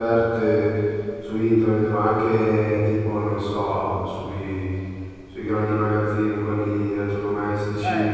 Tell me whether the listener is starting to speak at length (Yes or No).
Yes